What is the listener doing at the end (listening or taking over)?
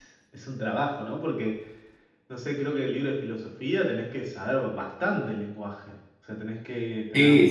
taking over